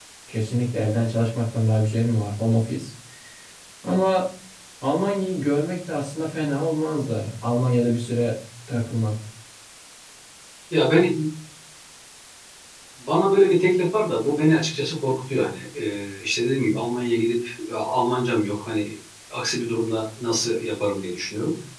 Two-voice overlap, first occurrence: none

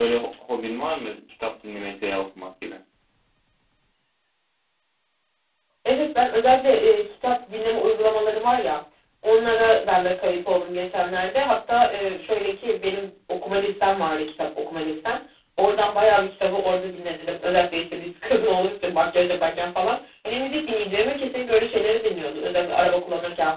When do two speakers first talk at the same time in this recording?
none

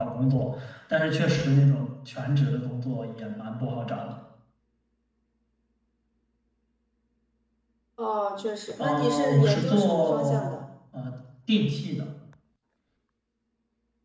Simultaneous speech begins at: 8.8 s

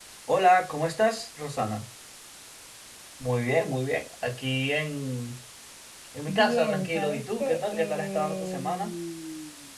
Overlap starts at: 6.3 s

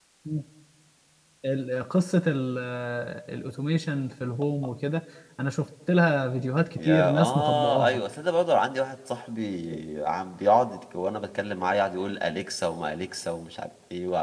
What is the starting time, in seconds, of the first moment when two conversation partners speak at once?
6.8 s

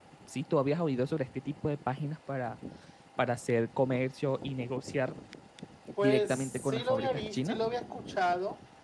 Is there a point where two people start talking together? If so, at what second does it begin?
6.0 s

